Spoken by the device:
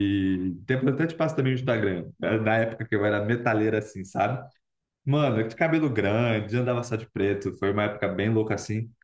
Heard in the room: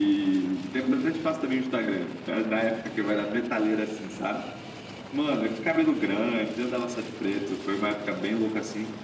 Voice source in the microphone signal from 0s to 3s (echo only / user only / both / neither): echo only